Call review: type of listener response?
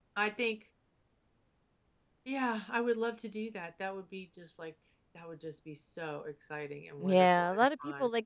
taking over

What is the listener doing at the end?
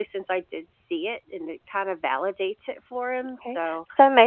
taking over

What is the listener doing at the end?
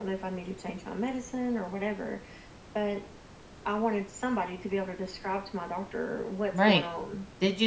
taking over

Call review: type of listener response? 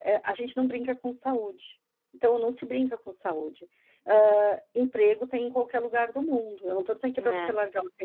listening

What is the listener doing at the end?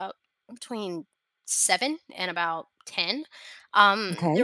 listening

